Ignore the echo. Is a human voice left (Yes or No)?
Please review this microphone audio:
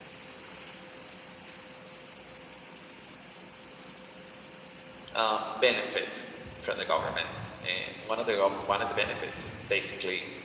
Yes